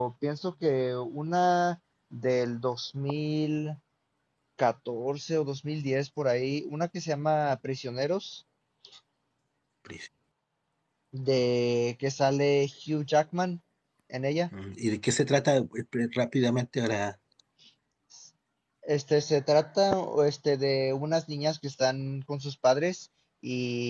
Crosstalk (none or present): none